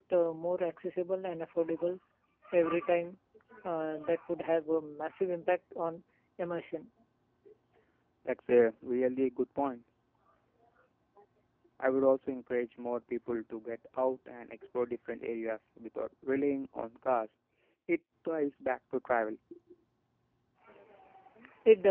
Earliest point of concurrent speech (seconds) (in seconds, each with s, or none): none